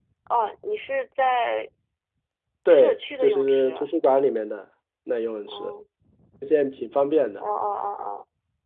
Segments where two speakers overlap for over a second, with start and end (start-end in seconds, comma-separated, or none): 2.7-3.9